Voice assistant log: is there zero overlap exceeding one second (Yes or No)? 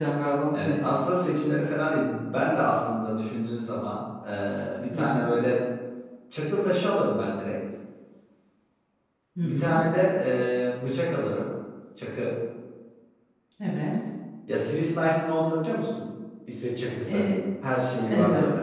Yes